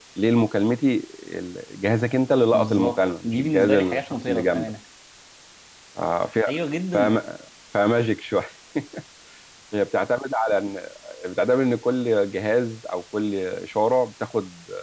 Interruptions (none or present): present